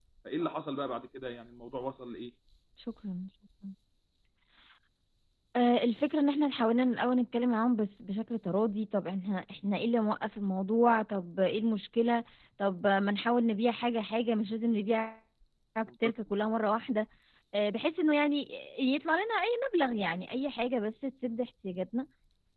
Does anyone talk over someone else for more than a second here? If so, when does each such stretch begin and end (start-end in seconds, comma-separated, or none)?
none